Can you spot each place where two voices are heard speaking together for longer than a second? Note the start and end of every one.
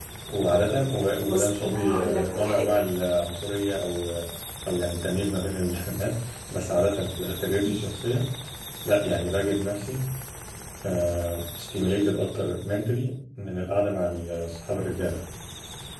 1.2-2.8

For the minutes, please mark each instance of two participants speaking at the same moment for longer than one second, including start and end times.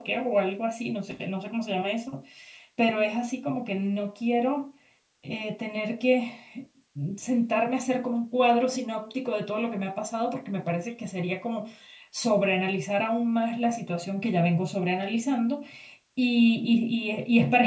none

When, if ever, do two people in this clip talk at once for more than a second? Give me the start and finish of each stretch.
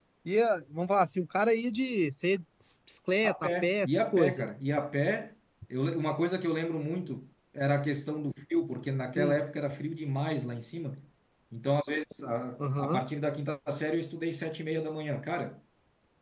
3.2-4.5

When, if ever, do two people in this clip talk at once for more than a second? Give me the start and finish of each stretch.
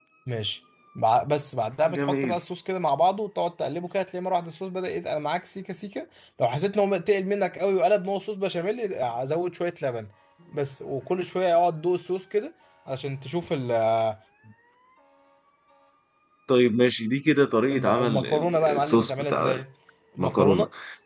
17.7-19.6

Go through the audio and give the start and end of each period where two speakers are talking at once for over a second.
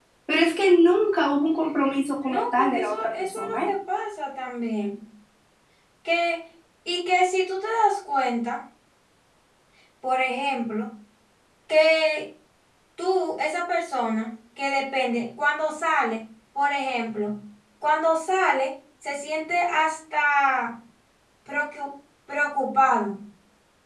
2.2-3.7

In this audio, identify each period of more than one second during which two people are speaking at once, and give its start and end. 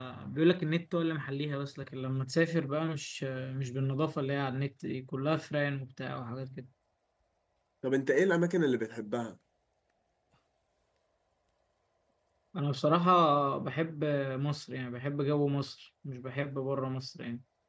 none

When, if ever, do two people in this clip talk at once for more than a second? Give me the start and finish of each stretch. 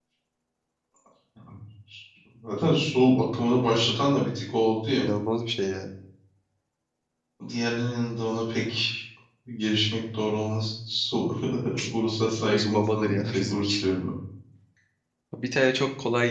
12.4-13.9

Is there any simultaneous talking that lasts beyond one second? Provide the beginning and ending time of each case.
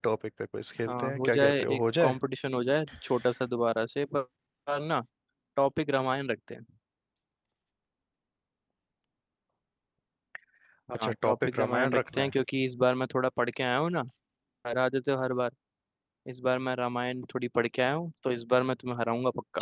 0.9-2.2, 10.9-12.3

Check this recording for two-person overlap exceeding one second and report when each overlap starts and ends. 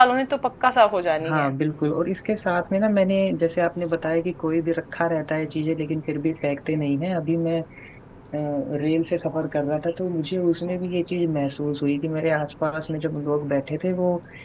none

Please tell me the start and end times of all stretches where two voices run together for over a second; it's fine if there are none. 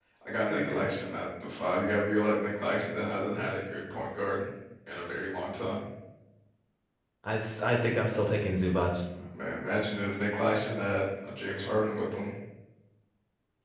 none

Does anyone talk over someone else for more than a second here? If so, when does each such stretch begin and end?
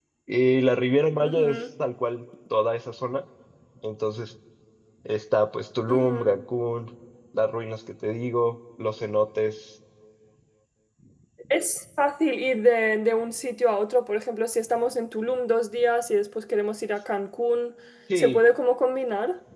none

